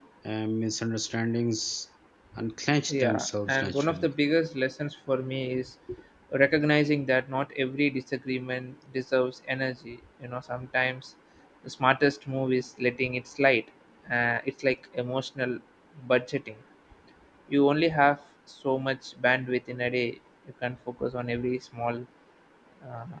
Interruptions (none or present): present